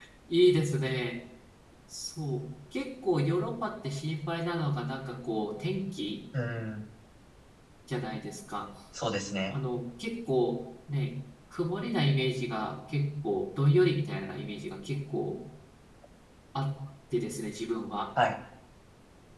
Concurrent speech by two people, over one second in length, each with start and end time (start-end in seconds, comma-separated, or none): none